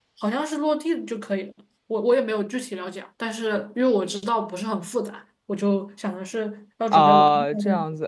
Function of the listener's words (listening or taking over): taking over